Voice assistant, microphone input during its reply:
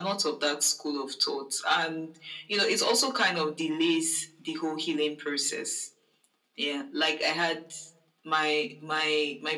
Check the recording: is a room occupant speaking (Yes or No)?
No